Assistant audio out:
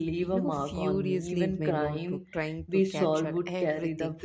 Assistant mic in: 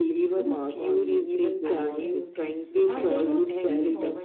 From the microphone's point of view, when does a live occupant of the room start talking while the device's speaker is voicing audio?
1.6 s

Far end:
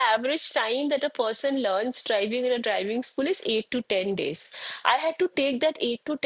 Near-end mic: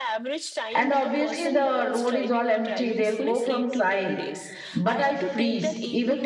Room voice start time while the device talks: 0.8 s

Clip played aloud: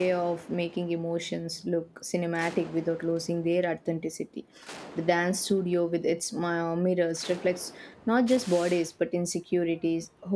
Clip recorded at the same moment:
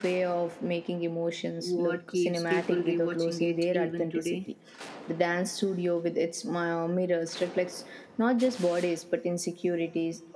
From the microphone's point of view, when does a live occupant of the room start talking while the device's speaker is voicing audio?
1.6 s

